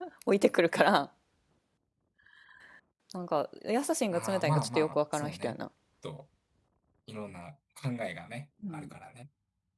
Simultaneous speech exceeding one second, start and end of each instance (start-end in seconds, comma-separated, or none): 4.1-5.5